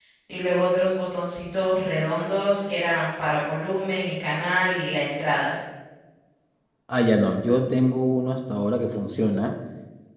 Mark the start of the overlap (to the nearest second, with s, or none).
none